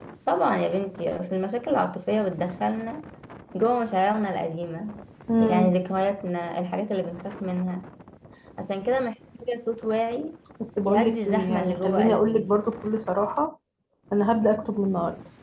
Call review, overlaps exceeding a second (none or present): present